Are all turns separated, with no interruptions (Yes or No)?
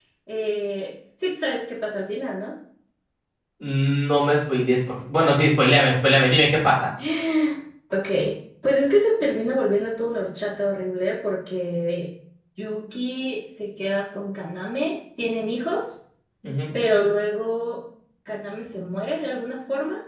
Yes